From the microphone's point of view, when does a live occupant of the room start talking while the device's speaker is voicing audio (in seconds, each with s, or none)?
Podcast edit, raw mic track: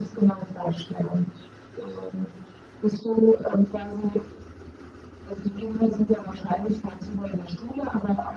none